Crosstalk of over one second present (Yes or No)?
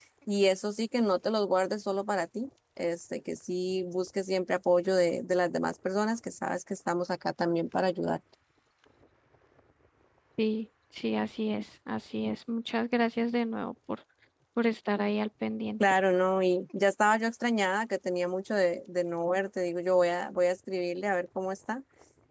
No